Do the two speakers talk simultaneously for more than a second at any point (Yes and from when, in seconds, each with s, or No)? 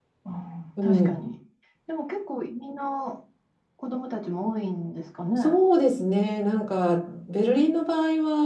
No